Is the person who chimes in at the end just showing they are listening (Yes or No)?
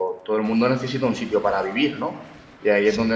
Yes